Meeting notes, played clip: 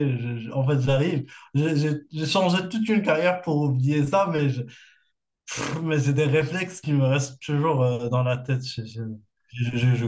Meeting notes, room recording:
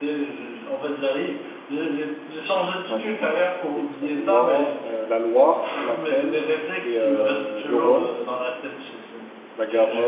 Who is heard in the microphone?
both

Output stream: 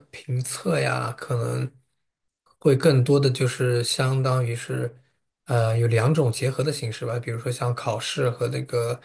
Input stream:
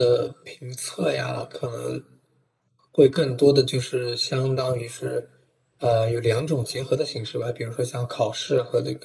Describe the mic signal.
echo only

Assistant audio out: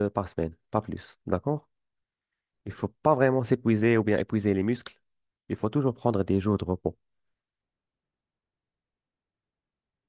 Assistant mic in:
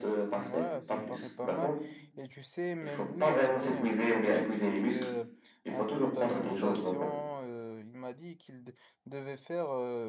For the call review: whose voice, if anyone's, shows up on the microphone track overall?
both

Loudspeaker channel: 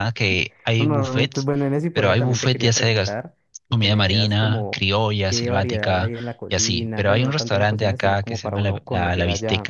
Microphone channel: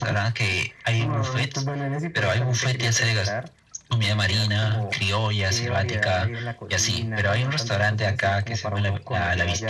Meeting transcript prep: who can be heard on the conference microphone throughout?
echo only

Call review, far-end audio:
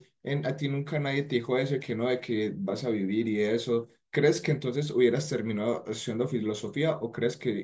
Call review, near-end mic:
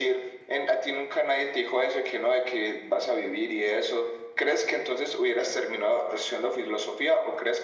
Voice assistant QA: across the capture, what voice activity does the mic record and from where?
echo only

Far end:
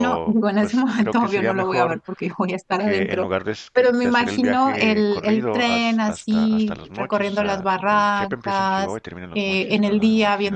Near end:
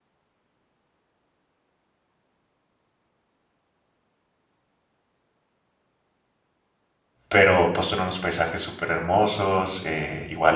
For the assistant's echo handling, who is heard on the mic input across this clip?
user only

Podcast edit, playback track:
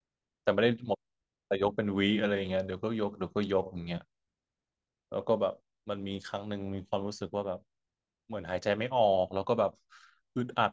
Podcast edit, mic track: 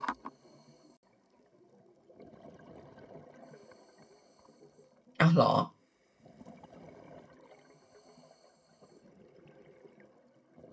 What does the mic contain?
user only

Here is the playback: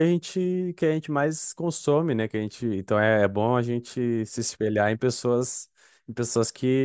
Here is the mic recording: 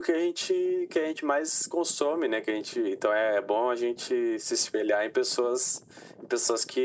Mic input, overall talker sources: echo only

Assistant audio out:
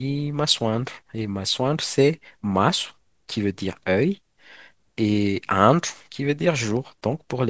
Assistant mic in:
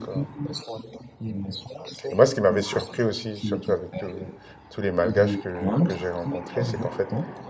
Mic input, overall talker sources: both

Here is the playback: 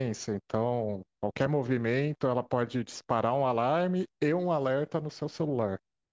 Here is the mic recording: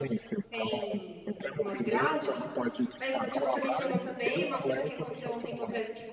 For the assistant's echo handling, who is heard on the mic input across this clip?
both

